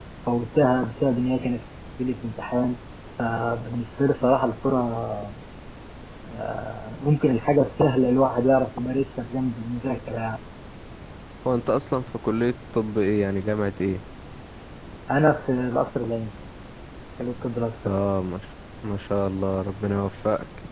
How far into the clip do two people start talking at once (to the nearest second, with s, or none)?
none